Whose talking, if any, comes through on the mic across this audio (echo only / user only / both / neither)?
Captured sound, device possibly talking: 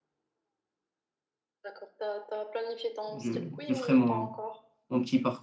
both